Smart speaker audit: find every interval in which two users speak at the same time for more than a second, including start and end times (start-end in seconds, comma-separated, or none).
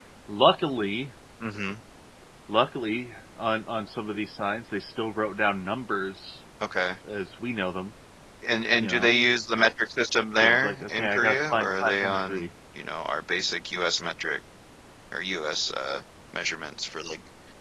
10.4-12.5